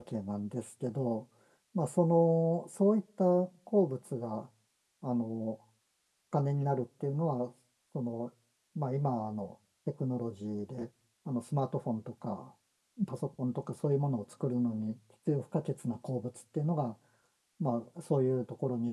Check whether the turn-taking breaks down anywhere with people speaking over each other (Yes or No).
No